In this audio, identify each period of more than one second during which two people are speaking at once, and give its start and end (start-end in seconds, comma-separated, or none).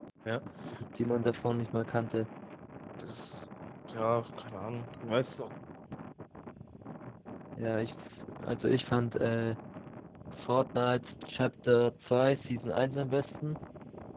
none